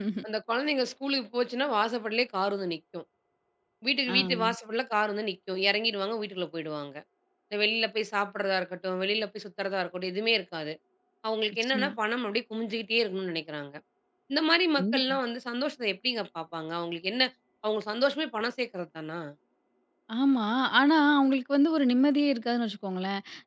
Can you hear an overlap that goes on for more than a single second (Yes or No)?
No